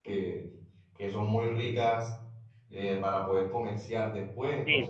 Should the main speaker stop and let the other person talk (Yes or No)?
Yes